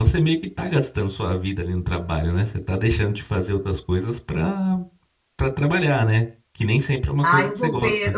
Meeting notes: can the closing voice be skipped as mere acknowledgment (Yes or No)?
No